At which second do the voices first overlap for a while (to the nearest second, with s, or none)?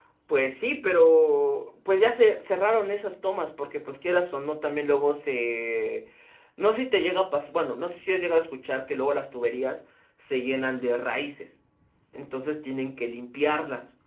none